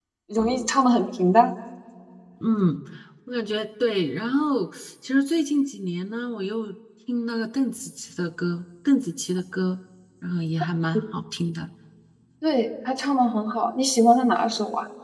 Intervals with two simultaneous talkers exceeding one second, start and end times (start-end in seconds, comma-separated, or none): none